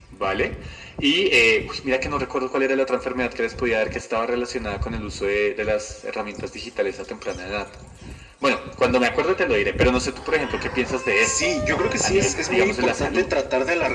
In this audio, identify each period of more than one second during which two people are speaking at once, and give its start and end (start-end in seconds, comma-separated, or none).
12.0-13.3